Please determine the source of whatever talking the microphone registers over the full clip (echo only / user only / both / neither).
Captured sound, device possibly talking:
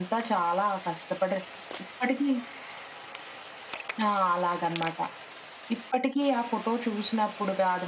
echo only